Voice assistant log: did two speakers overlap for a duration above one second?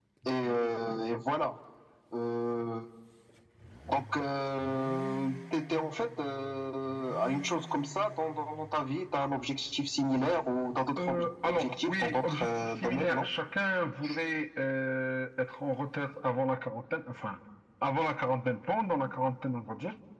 Yes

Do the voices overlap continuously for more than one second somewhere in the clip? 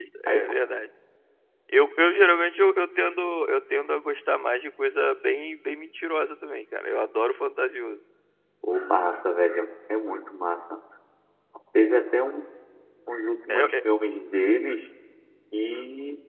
No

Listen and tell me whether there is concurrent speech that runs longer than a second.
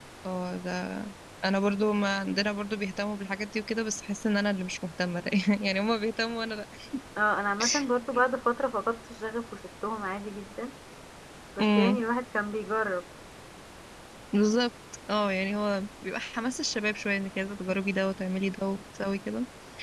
No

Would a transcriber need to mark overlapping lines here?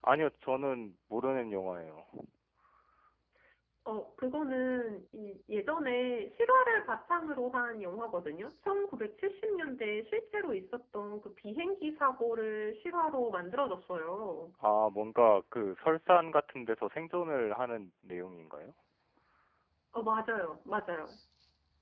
No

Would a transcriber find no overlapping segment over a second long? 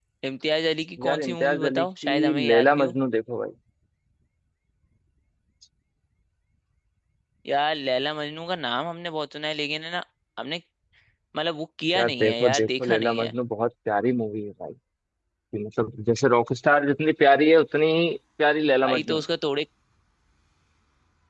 No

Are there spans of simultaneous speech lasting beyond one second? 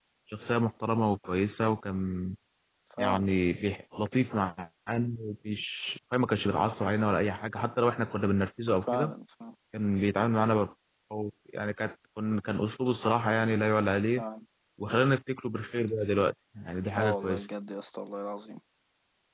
No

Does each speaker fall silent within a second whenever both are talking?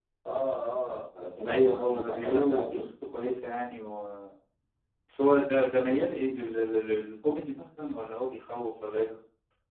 No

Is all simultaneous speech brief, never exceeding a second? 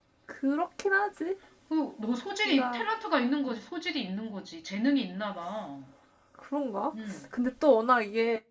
Yes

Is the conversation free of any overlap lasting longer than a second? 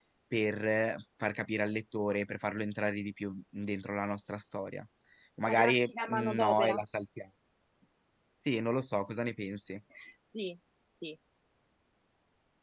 No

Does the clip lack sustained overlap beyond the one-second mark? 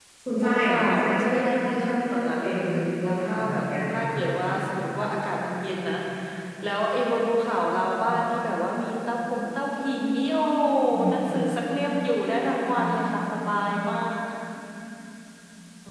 No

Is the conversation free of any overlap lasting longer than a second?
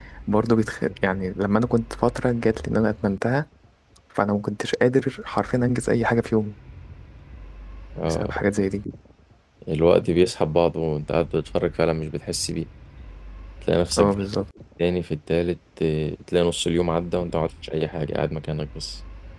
Yes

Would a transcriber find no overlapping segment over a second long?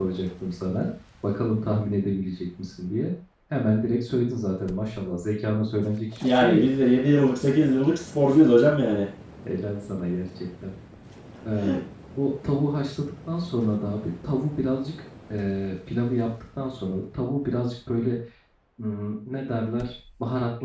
Yes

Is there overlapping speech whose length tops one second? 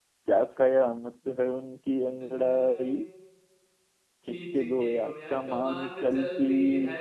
Yes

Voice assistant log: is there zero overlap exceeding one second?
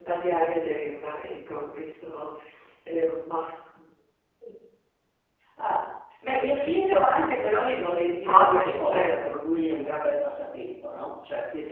No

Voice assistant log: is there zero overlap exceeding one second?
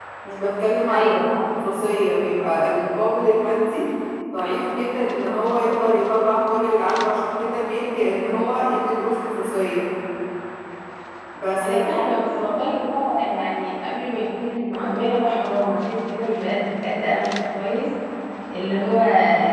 Yes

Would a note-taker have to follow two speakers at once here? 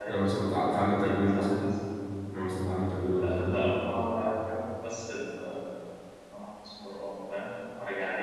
Yes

